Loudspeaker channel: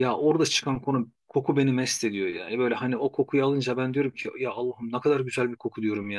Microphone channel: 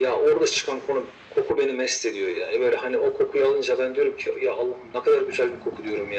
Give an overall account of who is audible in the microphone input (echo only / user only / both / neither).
echo only